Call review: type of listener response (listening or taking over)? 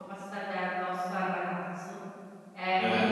listening